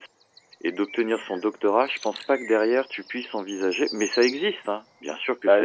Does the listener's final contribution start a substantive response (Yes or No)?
Yes